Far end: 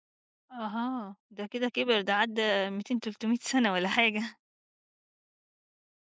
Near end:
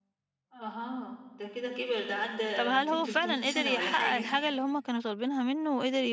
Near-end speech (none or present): present